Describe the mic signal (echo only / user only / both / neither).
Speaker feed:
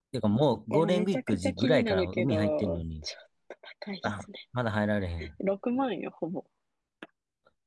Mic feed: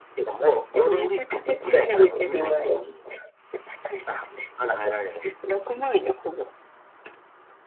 echo only